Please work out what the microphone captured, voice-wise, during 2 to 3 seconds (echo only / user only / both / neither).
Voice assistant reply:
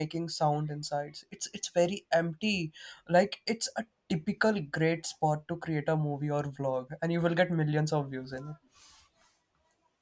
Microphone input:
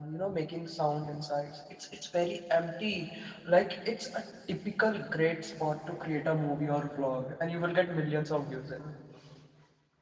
echo only